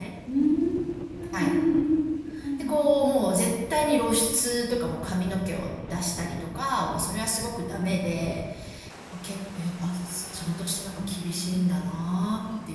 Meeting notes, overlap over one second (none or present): present